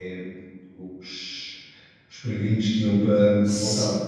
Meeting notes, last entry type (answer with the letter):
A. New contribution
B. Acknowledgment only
B